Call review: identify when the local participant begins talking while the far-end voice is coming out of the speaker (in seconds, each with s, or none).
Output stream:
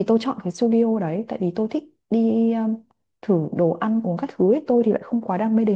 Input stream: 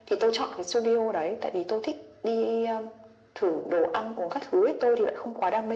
none